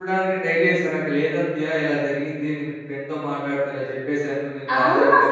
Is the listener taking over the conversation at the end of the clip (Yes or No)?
Yes